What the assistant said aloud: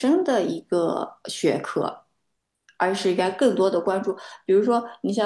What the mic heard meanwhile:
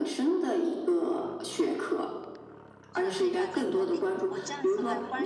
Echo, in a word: present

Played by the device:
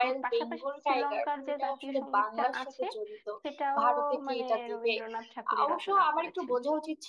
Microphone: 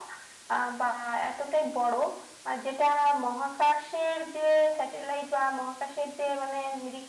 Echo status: none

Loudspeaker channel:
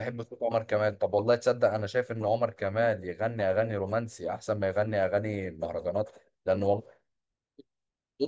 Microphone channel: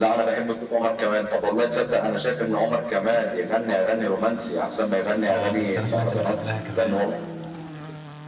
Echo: present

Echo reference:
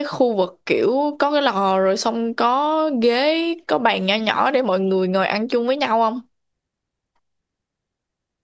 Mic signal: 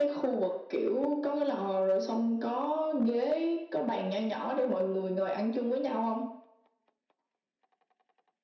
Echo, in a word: present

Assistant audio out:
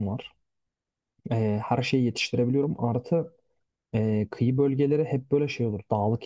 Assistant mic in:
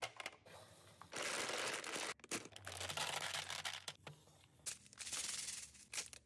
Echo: none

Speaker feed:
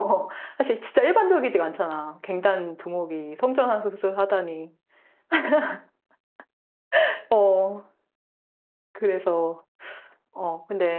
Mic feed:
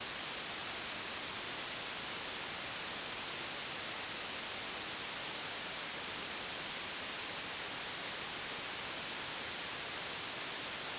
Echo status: none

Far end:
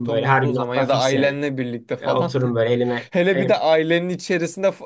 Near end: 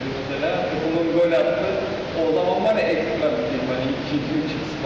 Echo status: none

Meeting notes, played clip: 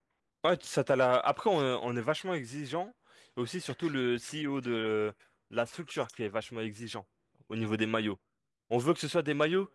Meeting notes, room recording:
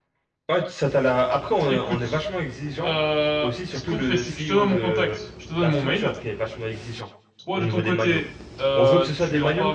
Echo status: present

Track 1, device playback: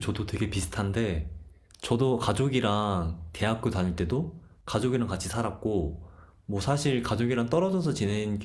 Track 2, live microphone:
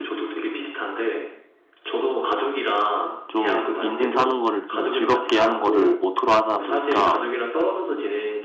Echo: present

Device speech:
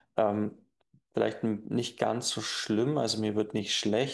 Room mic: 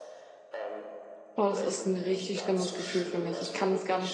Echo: present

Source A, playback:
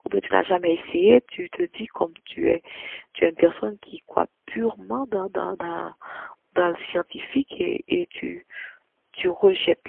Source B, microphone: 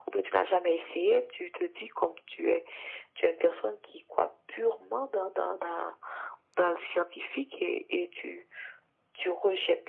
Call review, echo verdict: present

